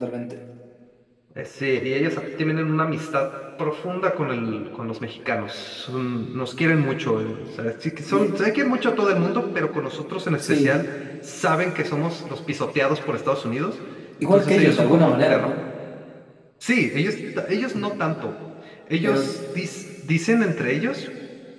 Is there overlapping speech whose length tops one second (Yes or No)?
Yes